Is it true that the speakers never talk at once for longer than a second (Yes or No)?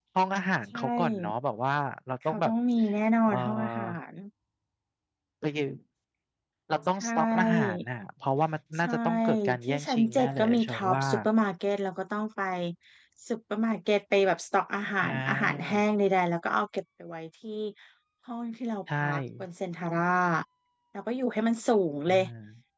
No